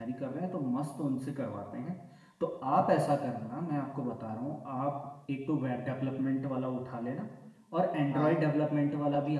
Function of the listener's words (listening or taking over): listening